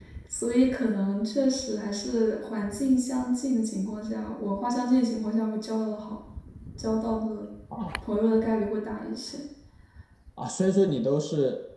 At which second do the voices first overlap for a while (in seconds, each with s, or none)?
none